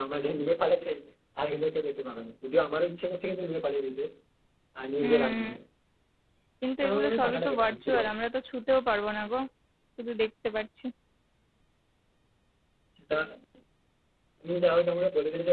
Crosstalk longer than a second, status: present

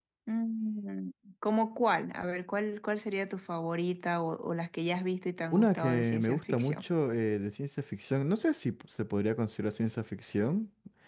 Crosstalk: present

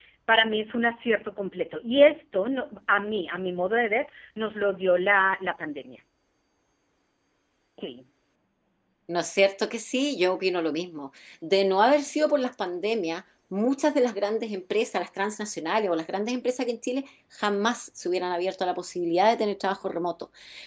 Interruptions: none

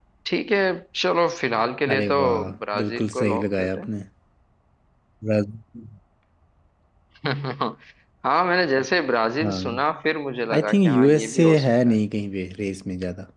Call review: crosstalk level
present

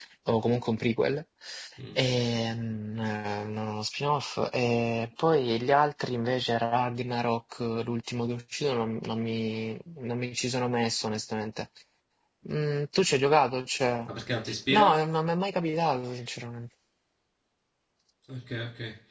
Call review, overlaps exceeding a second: none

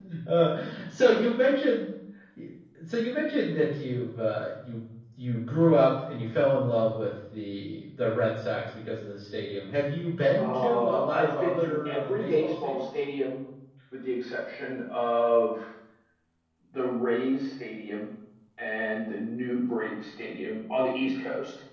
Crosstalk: present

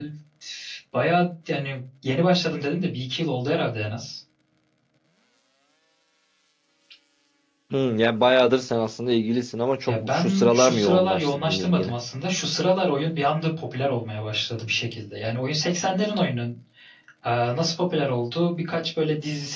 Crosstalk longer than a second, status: present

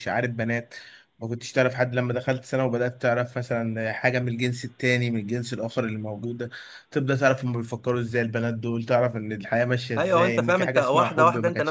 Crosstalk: present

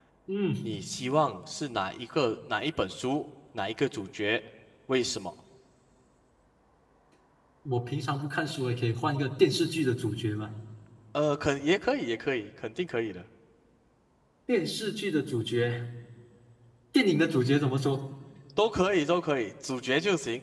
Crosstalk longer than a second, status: none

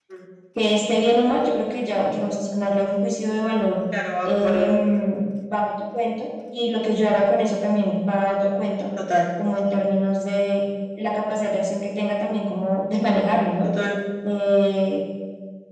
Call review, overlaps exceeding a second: none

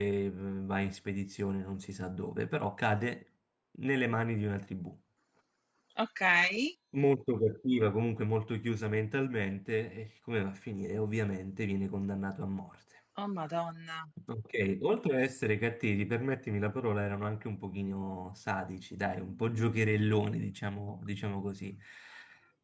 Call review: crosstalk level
none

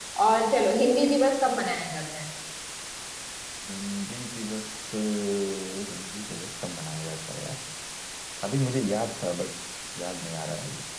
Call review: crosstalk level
none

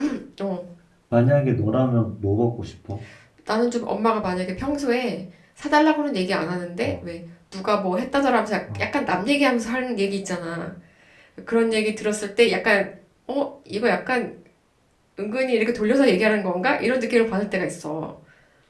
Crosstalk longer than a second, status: none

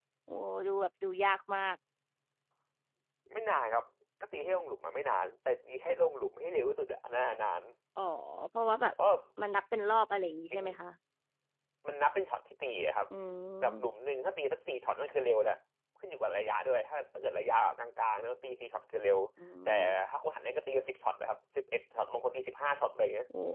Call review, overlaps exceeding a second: none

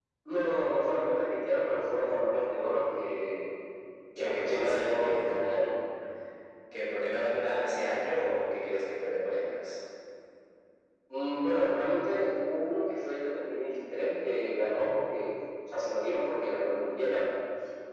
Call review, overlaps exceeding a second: present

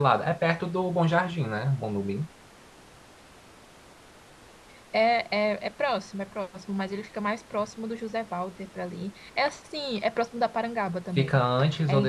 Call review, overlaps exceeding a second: none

